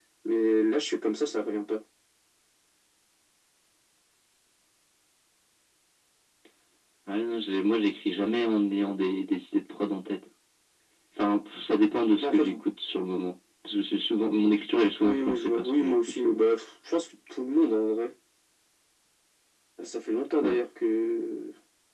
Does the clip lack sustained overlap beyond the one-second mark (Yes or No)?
No